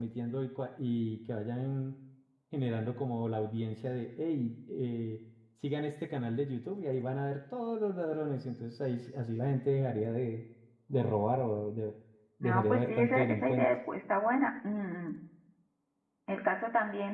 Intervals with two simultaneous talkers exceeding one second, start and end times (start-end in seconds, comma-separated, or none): 12.4-13.7